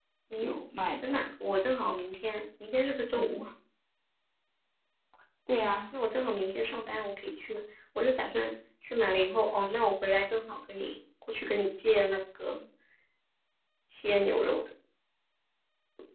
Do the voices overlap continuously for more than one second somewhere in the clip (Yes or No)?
No